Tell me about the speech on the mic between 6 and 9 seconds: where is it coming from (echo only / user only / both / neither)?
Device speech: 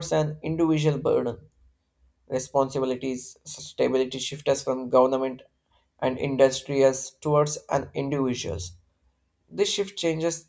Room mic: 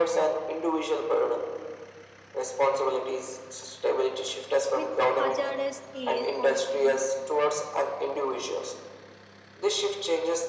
both